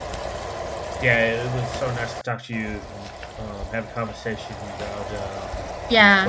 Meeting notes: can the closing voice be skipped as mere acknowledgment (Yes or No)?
No